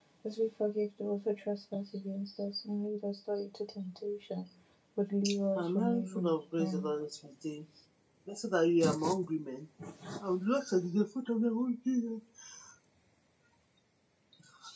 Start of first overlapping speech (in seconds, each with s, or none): 5.6 s